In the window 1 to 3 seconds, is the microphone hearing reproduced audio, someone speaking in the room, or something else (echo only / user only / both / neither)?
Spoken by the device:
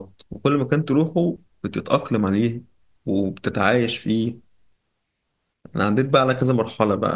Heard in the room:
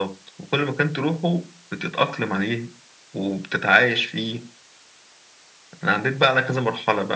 echo only